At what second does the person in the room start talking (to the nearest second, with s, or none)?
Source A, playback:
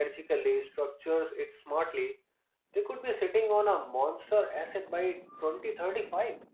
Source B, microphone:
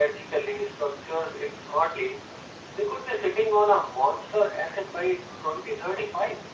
none